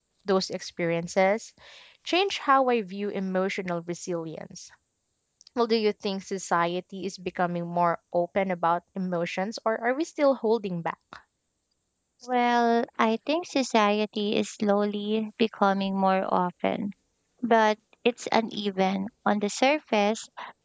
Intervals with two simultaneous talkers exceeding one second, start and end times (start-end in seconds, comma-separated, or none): none